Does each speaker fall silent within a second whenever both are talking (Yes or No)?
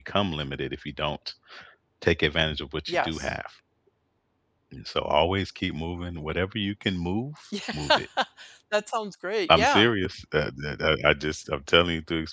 Yes